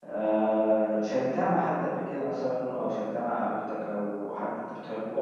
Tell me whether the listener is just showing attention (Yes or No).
No